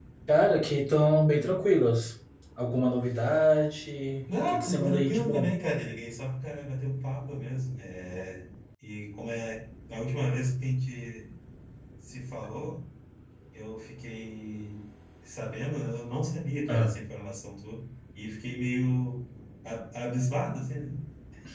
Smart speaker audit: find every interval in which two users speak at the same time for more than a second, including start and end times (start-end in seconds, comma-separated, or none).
4.3-5.5